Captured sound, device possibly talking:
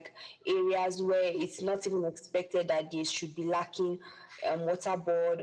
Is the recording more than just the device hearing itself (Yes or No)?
No